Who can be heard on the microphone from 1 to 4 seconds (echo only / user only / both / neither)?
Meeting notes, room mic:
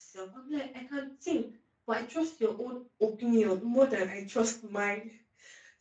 user only